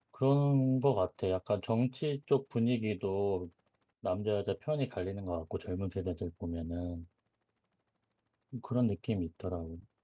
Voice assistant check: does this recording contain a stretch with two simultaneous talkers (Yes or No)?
No